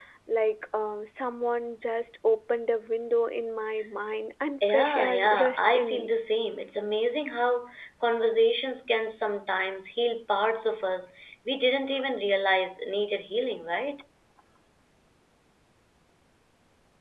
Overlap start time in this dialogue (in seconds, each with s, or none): 4.6 s